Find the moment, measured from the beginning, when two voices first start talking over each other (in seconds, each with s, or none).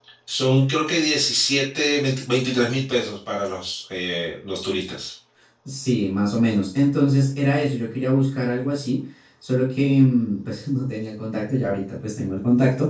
none